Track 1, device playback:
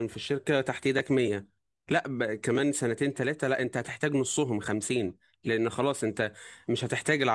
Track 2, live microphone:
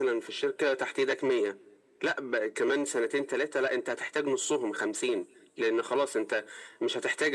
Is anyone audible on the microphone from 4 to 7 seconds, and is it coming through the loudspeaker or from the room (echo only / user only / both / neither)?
echo only